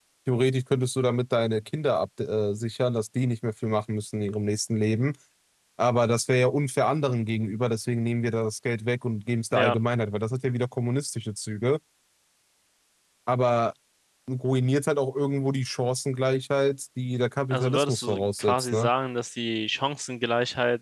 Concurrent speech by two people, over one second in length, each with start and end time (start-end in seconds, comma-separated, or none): 17.5-18.9